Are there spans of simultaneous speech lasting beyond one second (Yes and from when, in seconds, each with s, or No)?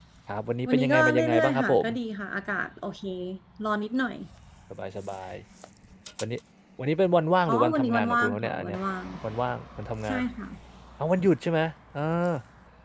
Yes, from 0.7 s